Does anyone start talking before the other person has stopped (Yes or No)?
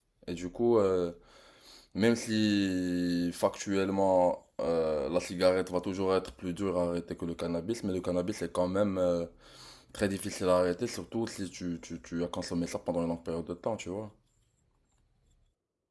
No